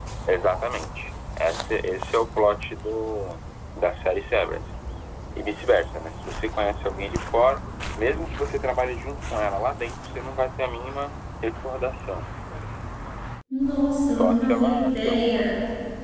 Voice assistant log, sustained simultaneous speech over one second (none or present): present